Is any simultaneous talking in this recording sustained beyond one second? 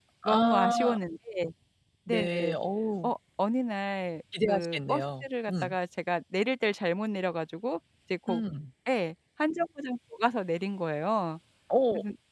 Yes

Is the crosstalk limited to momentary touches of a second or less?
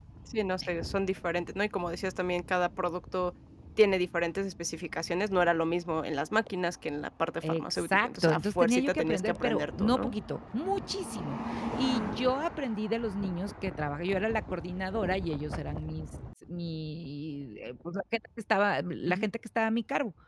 No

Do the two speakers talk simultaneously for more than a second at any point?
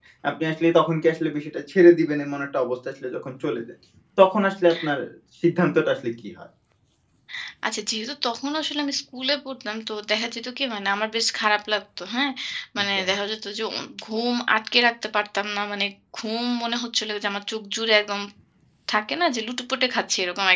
No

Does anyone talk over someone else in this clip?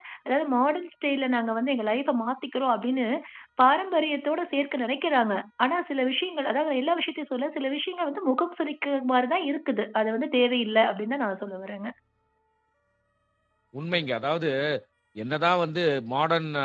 No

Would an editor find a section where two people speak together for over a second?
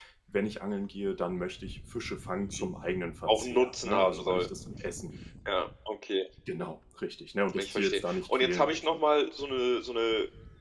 Yes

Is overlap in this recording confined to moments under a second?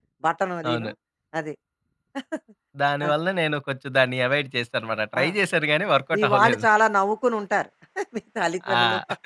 Yes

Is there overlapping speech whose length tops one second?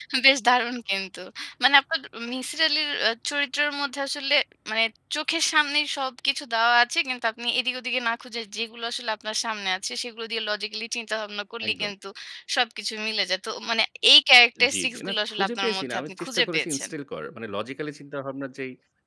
Yes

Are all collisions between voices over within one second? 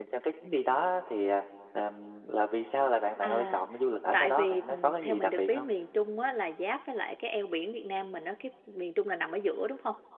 No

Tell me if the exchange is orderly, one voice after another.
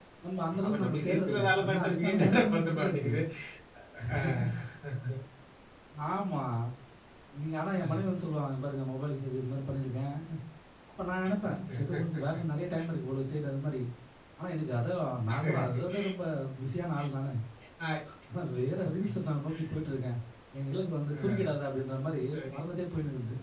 No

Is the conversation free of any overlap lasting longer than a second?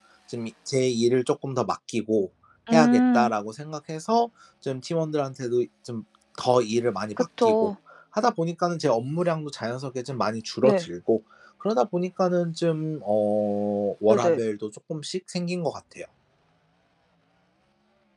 Yes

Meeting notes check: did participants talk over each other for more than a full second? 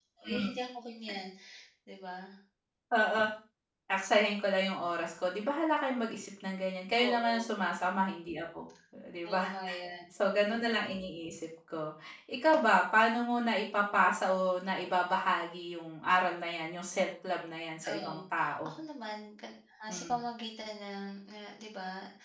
No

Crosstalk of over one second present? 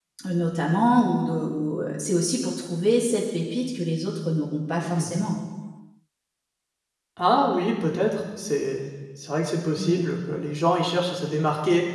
No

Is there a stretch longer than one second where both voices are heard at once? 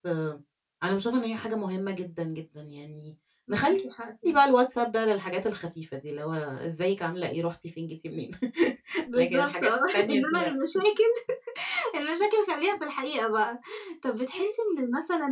Yes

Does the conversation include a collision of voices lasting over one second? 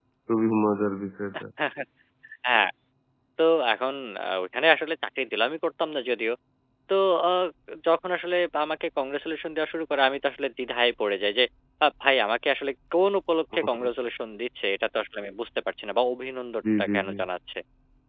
No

